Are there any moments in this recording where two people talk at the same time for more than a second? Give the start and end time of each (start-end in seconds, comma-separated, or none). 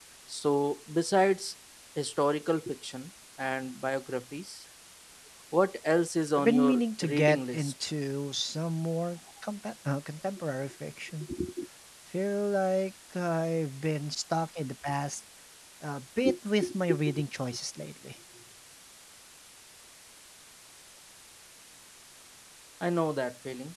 6.4-7.7